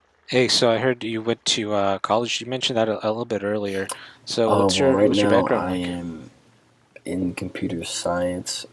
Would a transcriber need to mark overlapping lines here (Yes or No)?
Yes